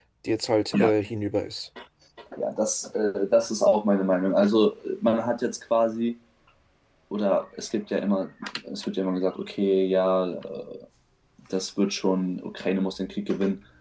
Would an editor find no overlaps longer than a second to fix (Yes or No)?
Yes